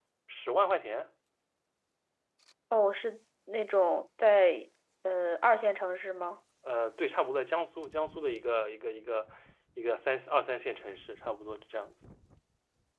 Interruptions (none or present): none